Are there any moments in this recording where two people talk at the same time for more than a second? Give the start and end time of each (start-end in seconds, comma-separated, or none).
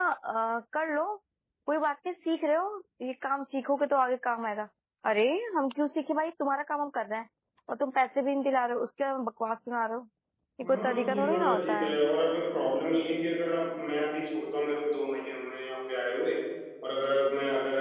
10.6-12.0